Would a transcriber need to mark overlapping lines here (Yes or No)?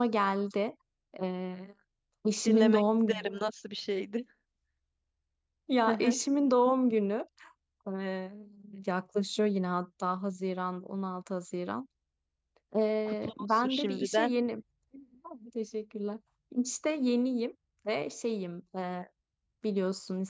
Yes